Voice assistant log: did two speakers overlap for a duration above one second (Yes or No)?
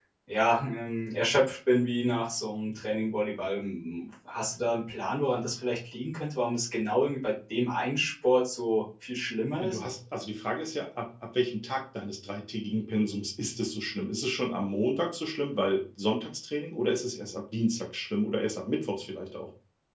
No